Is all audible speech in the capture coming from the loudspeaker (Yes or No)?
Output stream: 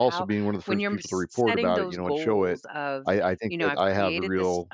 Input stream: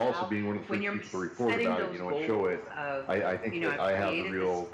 Yes